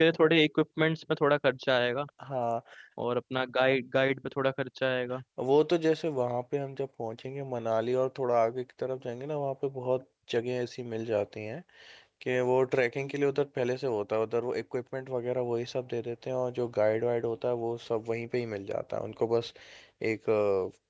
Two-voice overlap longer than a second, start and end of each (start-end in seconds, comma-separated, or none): none